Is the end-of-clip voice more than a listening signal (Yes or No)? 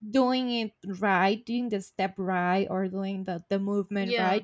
No